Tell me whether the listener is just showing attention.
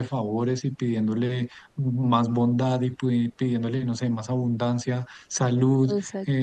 Yes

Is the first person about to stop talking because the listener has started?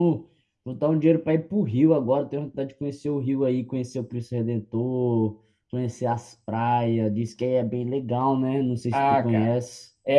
Yes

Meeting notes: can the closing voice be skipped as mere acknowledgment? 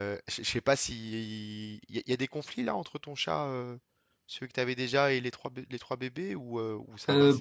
No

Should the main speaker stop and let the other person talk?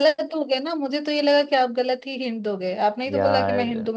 Yes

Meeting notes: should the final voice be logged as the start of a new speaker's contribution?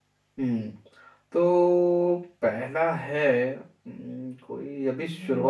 No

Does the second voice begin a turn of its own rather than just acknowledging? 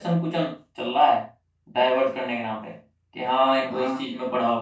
No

